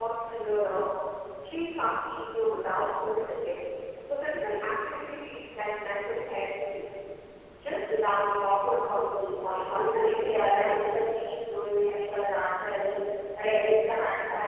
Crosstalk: present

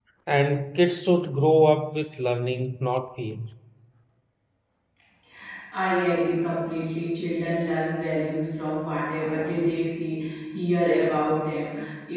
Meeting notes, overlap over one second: none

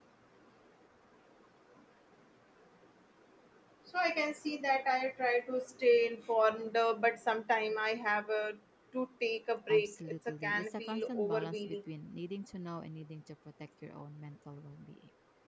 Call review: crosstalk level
present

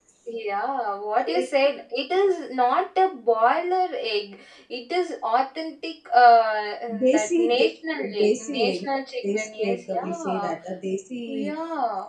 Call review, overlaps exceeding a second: present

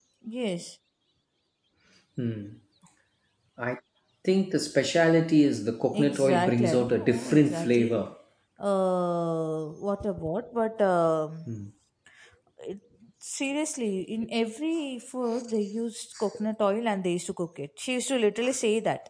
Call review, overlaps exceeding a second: present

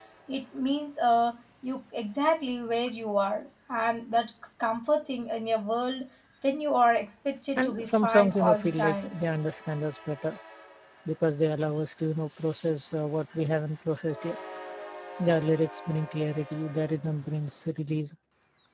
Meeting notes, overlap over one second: present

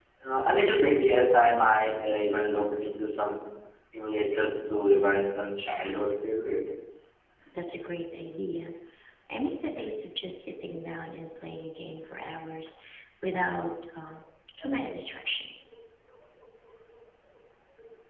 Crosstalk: none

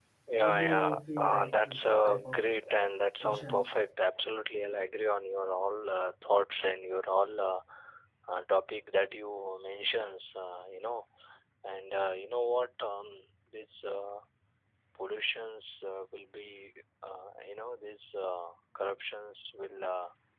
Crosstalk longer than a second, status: present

